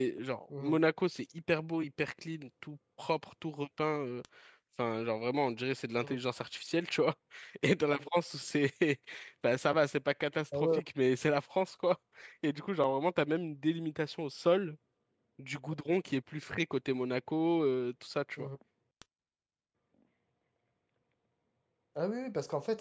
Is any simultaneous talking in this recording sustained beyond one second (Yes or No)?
No